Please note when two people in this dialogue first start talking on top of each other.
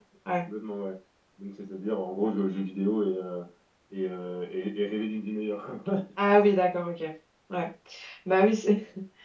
none

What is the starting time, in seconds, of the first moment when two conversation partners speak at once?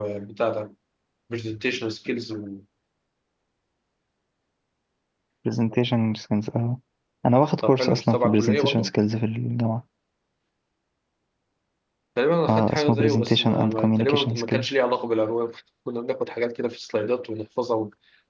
7.7 s

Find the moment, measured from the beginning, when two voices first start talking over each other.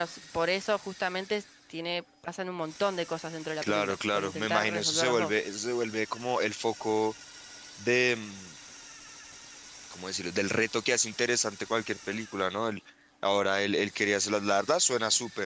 3.6 s

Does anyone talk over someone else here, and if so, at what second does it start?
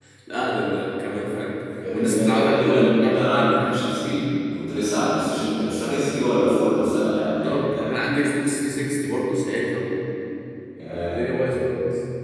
1.9 s

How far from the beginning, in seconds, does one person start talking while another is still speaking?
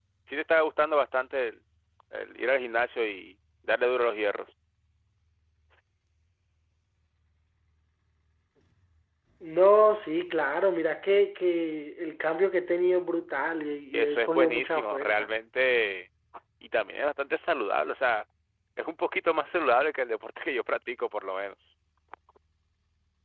13.9 s

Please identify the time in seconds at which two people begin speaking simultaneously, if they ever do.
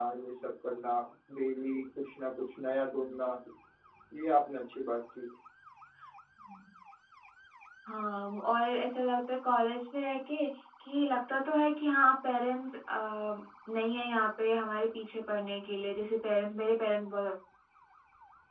none

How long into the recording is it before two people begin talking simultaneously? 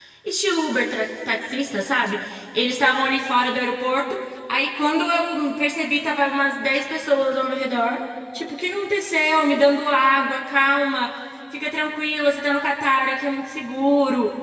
none

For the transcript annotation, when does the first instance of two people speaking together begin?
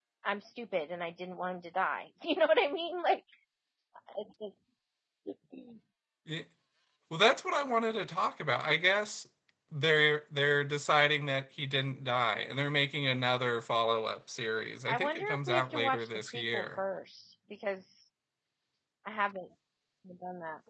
14.9 s

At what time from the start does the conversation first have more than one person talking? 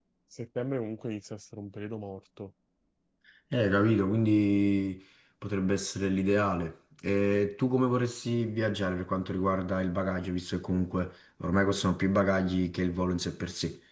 none

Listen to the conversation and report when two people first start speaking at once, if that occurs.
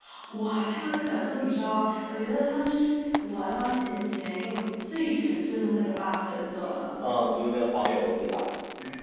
none

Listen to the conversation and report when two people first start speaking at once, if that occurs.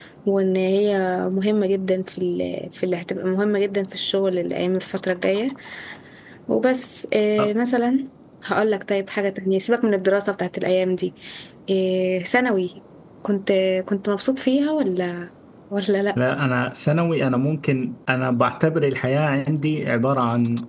none

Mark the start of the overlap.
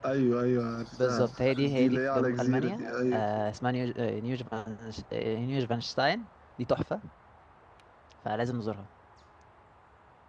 0.9 s

